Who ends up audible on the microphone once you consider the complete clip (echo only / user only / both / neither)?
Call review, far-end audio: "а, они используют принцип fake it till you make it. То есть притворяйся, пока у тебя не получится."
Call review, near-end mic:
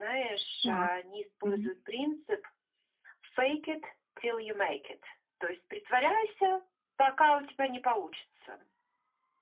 both